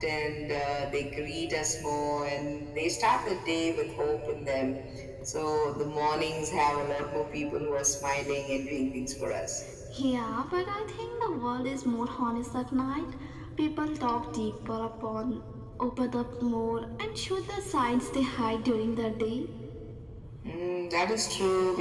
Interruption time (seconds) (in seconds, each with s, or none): none